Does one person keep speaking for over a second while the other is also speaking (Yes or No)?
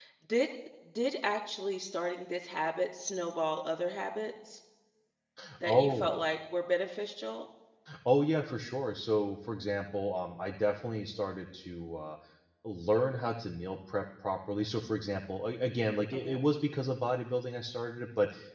No